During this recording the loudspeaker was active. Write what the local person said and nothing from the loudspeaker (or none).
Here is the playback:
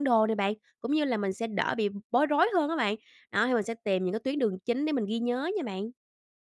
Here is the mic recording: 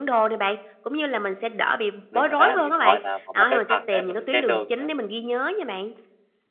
Đúng rồi đó, điện thoại là một một cái vật để mình xem đường nữa.